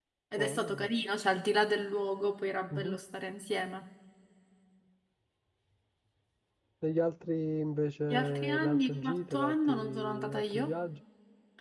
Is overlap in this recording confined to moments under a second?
No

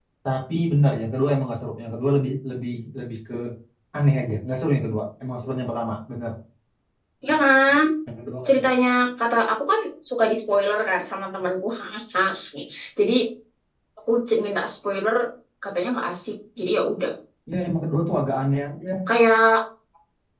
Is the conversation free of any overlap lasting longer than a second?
Yes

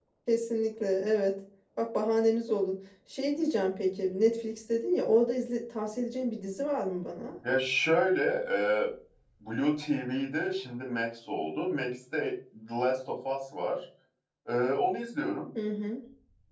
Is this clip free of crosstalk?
Yes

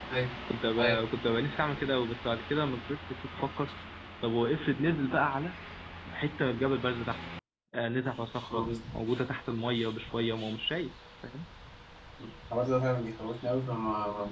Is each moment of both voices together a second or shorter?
Yes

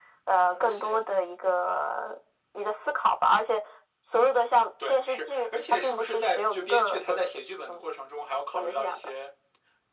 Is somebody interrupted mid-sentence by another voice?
Yes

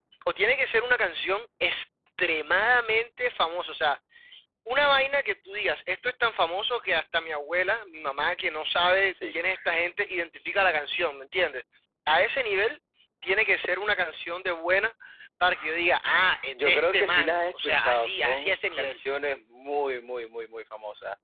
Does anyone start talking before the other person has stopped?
Yes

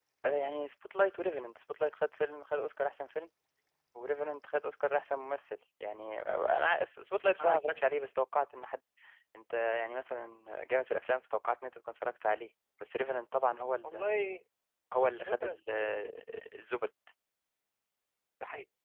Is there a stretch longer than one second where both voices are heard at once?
No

